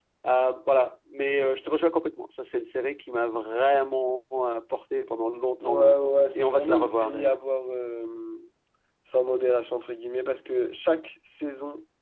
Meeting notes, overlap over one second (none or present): present